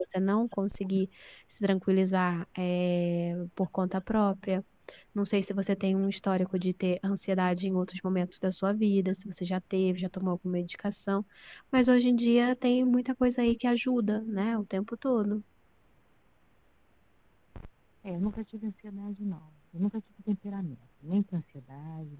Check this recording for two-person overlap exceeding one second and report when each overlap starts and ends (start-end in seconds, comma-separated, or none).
none